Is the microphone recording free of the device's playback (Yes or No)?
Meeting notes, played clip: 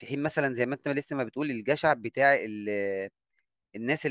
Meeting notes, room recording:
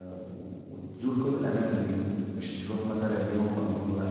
Yes